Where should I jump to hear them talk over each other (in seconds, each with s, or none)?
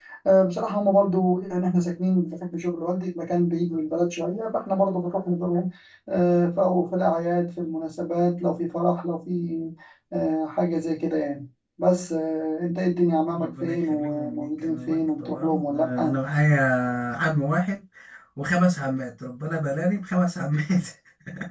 13.4 s